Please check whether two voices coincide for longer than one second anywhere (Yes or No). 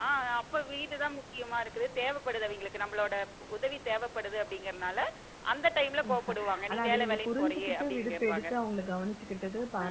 Yes